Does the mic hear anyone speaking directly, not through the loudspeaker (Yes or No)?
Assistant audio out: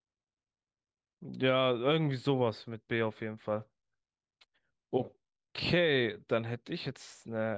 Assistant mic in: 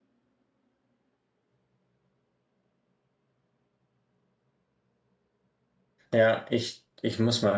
Yes